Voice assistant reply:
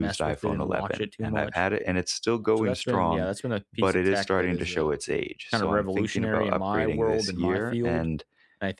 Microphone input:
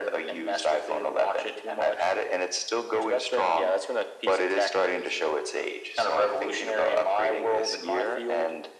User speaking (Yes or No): No